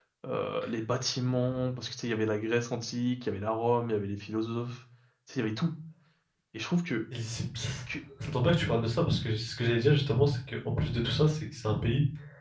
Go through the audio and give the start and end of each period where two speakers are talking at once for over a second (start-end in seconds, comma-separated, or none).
none